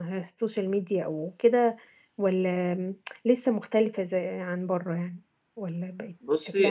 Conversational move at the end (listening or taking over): taking over